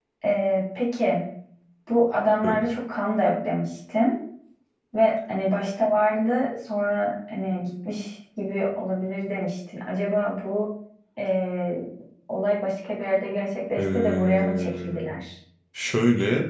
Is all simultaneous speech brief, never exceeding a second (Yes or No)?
No